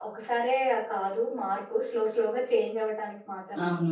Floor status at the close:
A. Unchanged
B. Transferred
B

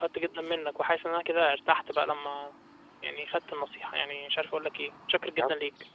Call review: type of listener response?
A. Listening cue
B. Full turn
B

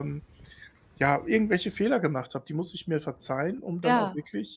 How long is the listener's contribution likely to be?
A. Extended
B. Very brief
B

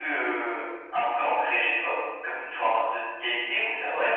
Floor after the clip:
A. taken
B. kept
A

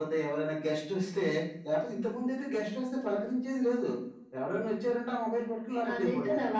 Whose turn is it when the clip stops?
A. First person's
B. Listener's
B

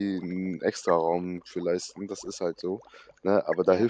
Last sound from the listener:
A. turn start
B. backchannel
B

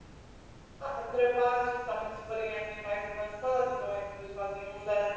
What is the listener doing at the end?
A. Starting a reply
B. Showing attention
B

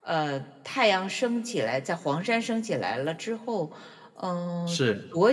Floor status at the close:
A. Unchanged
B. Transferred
A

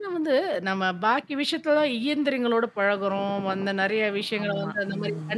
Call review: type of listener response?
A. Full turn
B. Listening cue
B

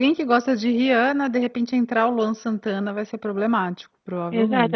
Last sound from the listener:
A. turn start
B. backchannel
A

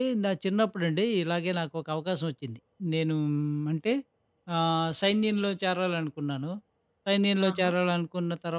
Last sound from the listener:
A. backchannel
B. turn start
A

